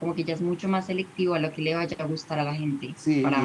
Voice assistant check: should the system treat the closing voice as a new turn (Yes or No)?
Yes